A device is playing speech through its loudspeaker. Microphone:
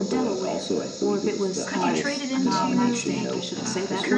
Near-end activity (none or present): present